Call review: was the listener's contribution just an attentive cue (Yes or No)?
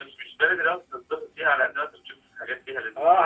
No